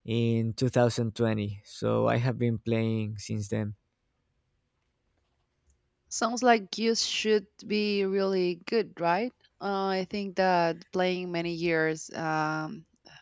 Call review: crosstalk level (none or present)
none